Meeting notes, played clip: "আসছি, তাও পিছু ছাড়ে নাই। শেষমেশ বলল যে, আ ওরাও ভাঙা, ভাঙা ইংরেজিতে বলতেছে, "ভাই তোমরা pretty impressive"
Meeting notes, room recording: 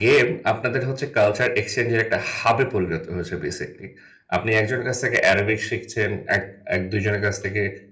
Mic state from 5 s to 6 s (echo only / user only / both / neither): user only